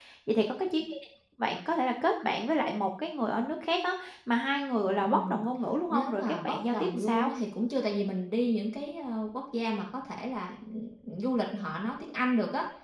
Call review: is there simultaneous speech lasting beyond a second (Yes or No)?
Yes